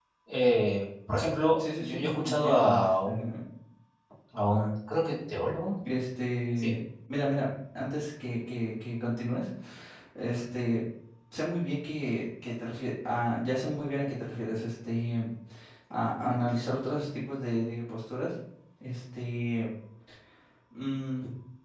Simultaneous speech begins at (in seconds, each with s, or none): 1.6 s